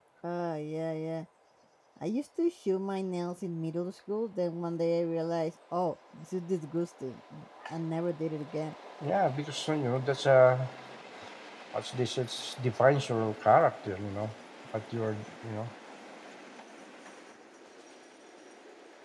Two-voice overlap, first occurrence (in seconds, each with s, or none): none